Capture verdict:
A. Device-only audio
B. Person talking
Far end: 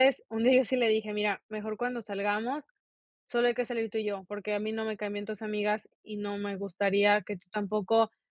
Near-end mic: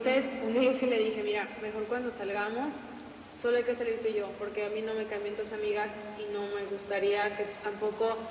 A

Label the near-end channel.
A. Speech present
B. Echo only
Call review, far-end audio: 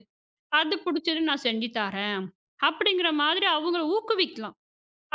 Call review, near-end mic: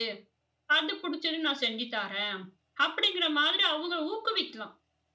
B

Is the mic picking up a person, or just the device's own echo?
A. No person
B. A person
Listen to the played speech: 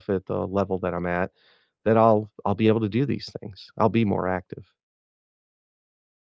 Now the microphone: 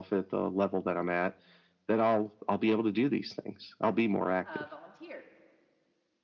B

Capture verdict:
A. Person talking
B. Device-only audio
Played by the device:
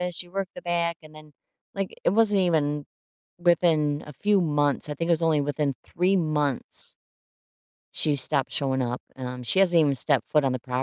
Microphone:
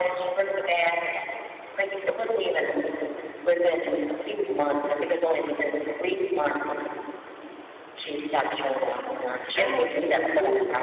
A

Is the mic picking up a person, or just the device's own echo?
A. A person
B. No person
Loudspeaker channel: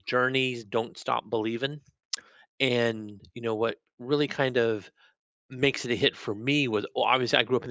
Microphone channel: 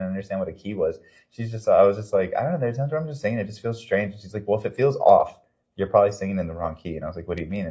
A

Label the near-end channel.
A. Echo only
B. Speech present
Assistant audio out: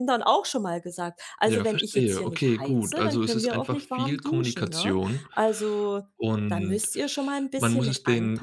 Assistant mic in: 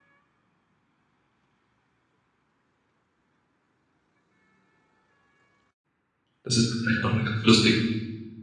B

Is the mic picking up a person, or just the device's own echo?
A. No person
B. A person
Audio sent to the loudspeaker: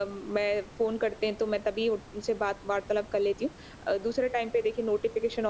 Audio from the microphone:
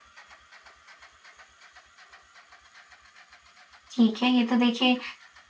B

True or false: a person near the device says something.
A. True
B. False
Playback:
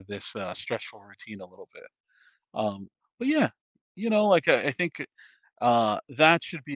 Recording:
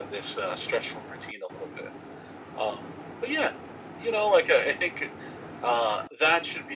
B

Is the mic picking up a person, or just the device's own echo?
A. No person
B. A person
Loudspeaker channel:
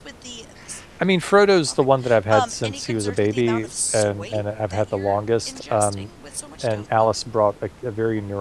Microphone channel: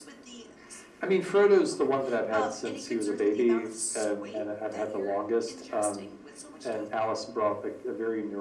A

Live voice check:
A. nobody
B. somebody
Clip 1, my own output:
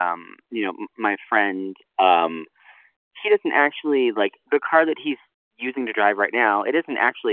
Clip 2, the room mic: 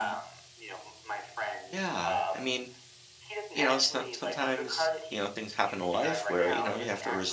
B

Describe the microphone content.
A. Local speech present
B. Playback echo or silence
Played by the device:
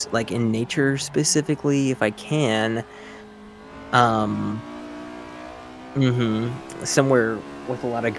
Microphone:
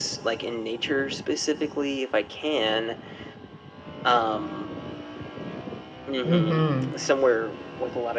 A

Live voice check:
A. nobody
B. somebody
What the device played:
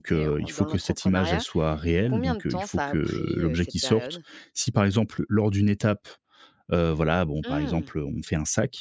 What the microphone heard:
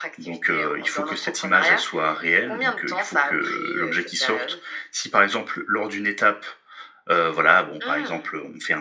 A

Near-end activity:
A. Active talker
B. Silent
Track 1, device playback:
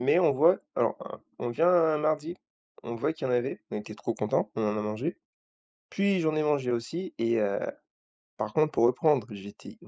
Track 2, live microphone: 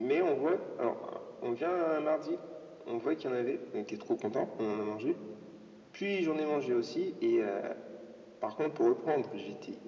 B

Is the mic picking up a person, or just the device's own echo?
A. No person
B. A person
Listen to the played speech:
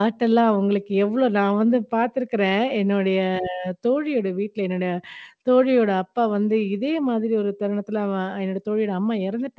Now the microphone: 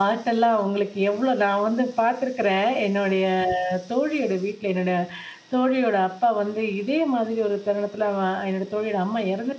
A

